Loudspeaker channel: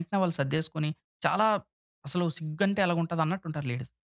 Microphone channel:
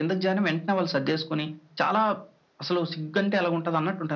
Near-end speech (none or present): none